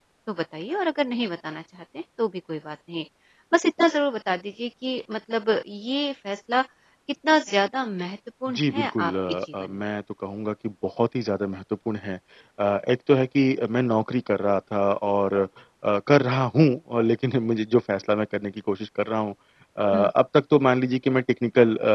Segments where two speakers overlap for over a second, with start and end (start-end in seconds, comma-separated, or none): 8.6-9.8